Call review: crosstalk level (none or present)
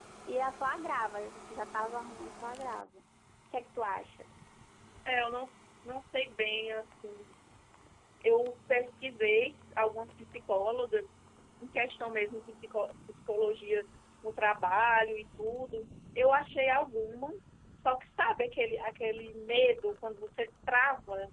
none